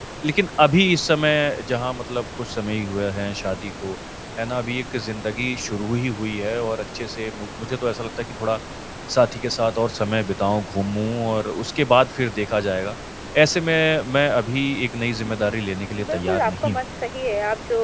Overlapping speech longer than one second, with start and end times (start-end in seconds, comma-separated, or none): 15.2-16.8